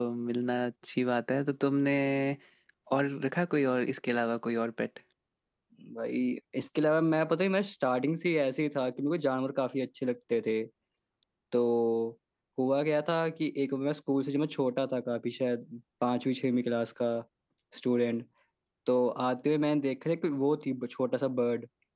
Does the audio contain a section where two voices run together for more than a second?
No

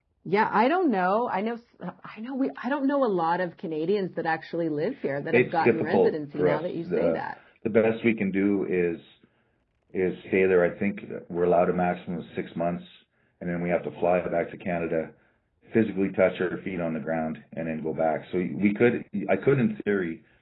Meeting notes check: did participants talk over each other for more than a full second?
Yes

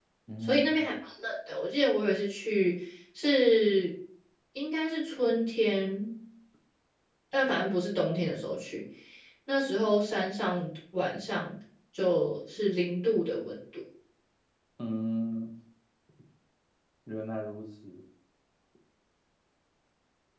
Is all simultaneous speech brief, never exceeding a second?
Yes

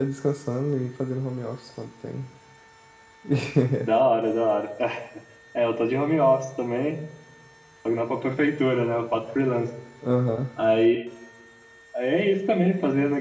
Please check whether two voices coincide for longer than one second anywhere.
No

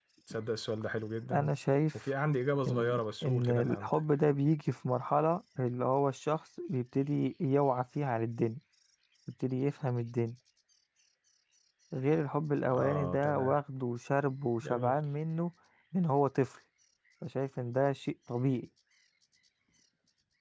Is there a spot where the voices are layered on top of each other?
Yes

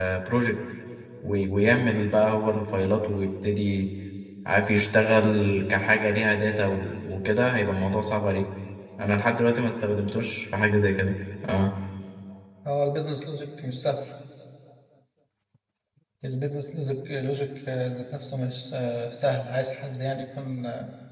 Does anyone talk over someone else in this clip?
No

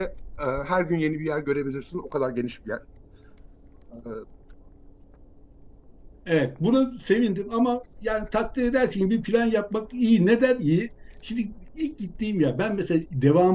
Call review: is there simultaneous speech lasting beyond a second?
No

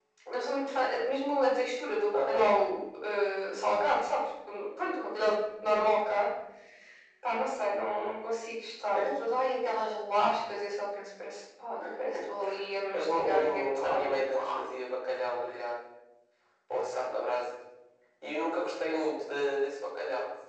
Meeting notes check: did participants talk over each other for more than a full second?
Yes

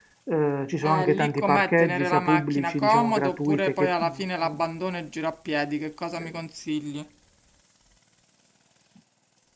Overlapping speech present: Yes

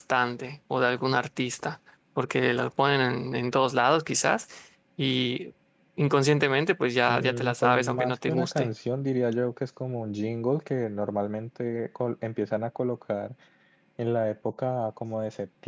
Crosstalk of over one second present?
Yes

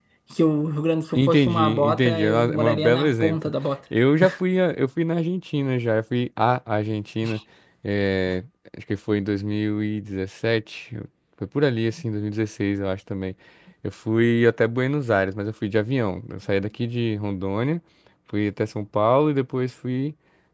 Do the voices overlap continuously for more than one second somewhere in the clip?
Yes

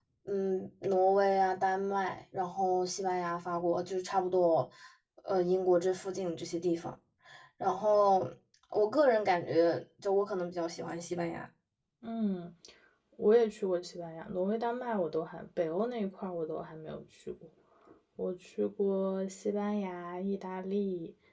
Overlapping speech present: No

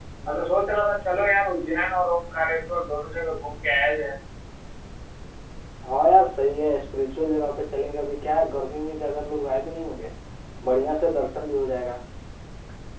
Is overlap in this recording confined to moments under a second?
Yes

